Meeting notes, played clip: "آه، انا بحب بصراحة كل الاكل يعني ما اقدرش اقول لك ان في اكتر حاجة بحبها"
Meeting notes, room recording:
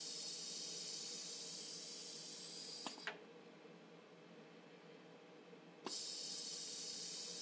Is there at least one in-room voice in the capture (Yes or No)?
No